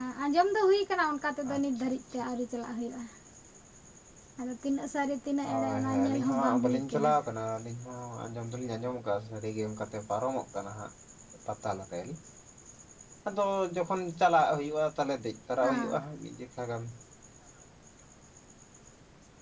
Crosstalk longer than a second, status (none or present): present